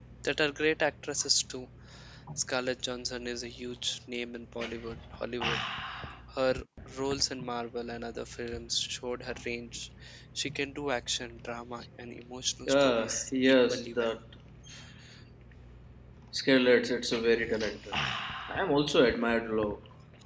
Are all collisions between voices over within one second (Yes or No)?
No